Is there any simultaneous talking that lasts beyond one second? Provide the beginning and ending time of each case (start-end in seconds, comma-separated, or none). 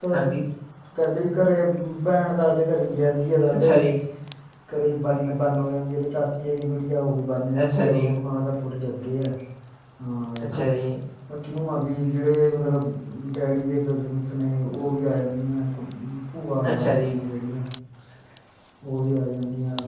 none